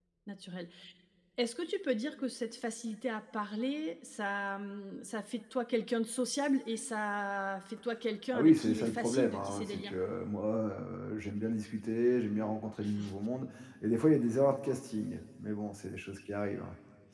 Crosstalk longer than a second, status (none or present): present